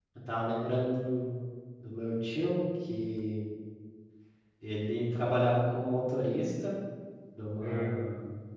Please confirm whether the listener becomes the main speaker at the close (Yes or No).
No